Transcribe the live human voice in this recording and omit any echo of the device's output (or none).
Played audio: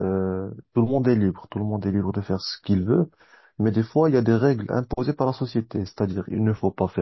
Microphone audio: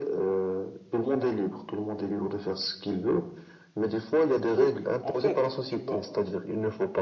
Je trouve, en fait, tu vas